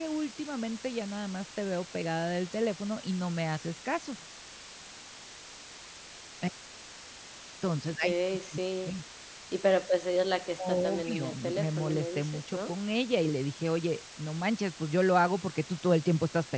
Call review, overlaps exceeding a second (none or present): present